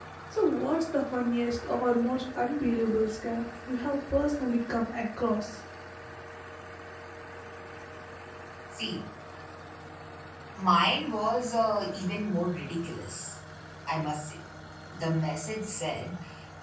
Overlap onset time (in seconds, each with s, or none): none